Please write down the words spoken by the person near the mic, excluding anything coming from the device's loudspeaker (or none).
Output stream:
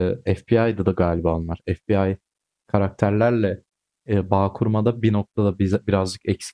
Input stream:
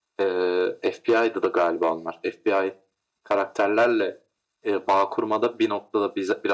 none